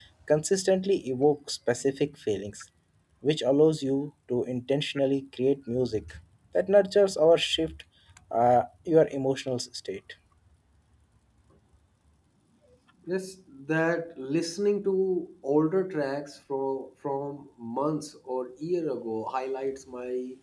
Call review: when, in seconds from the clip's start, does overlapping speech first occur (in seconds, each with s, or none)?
none